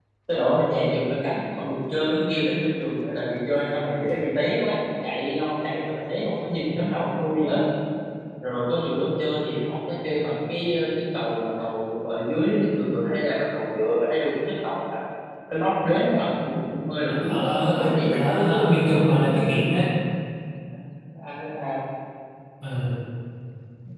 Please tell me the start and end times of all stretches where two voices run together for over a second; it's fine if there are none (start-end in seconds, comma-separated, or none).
17.1-19.5